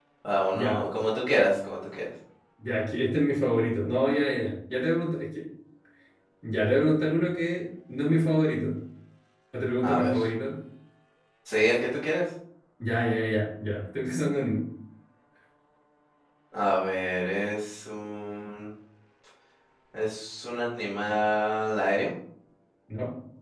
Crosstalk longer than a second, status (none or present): none